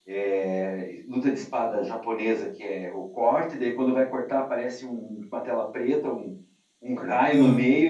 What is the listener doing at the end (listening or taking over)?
listening